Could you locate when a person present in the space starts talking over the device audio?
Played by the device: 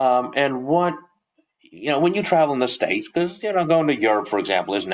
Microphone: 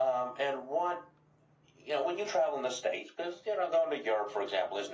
none

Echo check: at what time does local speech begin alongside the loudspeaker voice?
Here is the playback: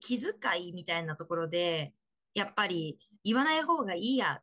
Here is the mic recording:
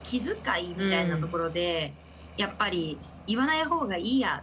0.8 s

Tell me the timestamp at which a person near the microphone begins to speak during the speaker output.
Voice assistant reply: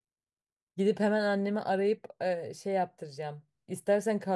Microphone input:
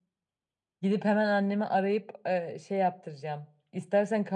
none

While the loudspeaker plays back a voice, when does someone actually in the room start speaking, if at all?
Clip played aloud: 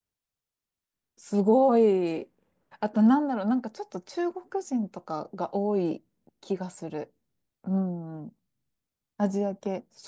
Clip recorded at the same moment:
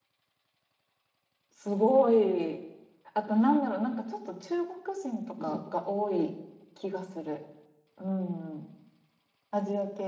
5.4 s

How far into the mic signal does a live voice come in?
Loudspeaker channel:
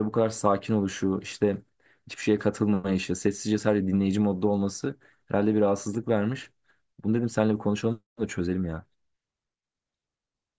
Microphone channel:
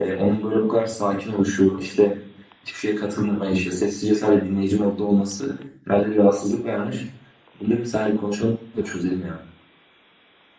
none

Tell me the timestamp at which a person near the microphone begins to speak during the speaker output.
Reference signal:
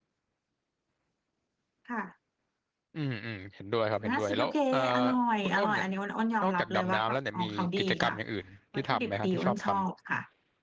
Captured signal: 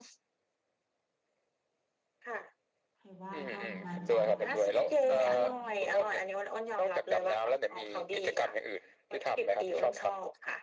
3.0 s

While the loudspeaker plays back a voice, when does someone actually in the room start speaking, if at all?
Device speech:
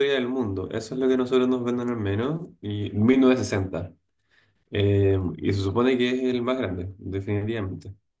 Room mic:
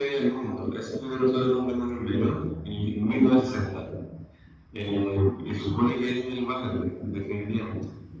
none

